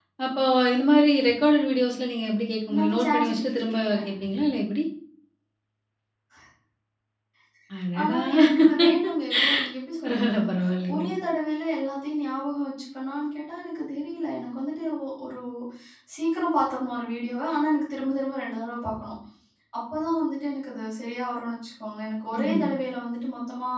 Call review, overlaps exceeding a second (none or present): present